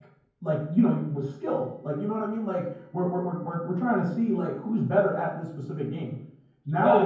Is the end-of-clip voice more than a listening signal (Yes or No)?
Yes